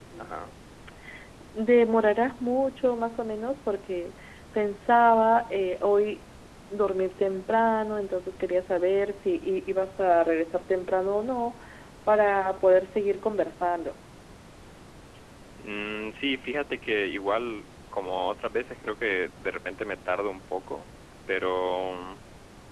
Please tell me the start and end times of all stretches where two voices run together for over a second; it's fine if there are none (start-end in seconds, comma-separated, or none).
none